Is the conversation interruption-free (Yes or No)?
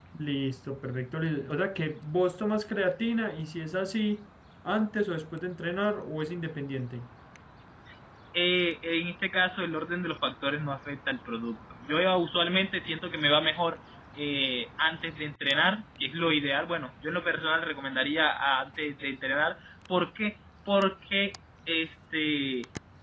Yes